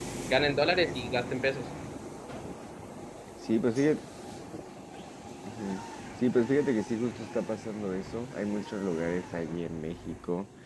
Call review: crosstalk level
none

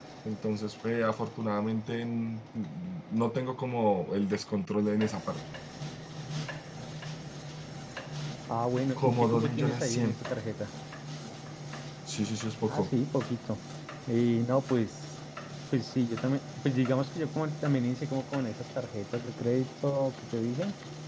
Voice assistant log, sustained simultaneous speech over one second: present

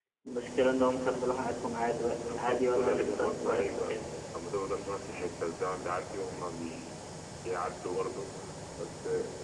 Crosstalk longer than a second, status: present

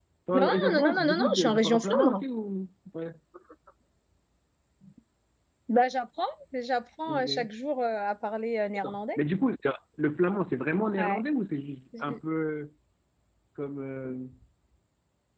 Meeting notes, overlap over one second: present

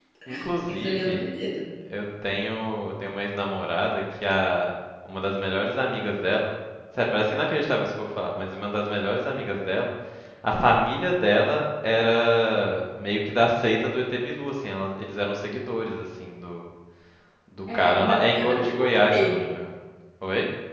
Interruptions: present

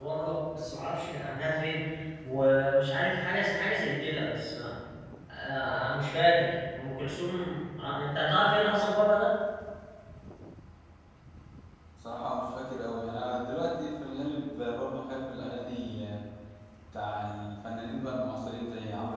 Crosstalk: none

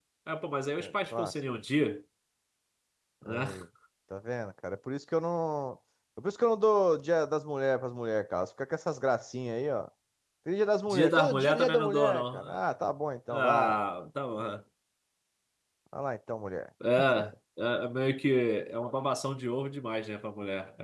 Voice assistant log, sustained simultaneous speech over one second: present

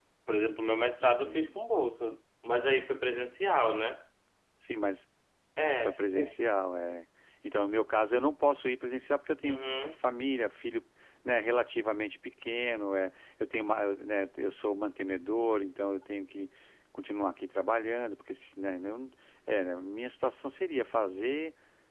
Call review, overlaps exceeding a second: none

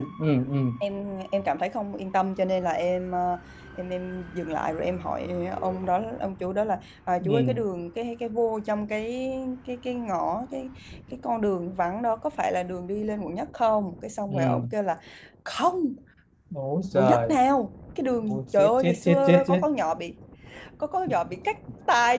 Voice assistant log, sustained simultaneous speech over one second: present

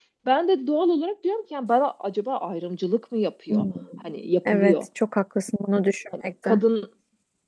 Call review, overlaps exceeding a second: none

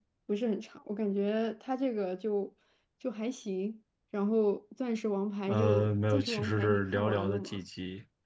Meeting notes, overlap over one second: present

